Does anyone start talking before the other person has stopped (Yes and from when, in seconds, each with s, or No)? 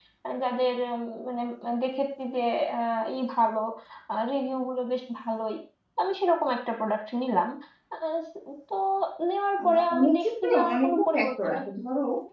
Yes, from 9.6 s